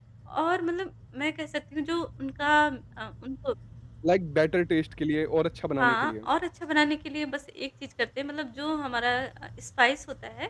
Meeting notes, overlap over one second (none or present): none